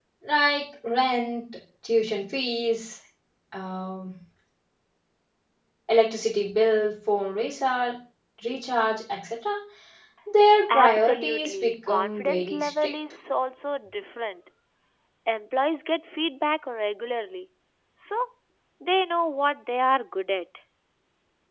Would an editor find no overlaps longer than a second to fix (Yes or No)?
No